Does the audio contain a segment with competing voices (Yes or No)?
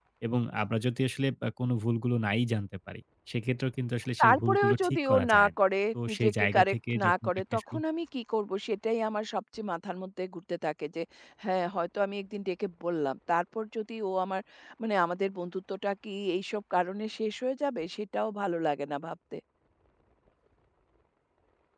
Yes